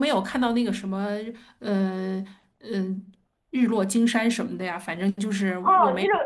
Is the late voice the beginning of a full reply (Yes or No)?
Yes